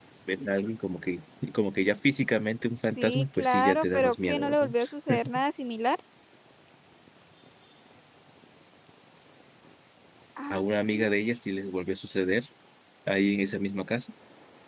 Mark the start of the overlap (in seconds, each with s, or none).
3.0 s